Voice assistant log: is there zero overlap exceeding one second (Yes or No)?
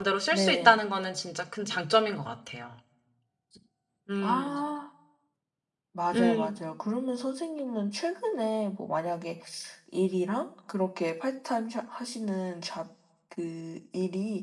Yes